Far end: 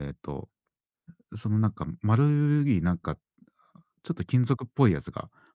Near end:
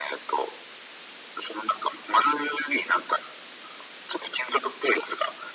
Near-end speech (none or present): none